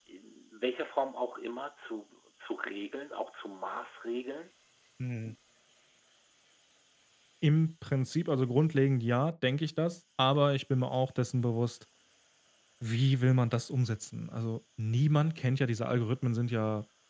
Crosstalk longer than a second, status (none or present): none